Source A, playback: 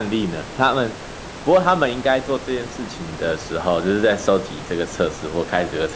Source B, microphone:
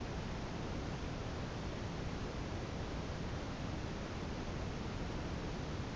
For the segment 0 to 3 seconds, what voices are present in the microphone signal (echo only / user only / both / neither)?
neither